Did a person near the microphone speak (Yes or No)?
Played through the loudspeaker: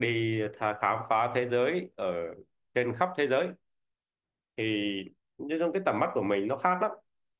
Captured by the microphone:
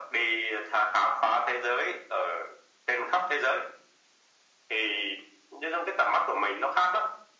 No